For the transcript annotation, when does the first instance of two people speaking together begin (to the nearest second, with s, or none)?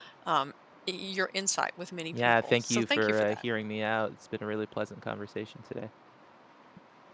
2 s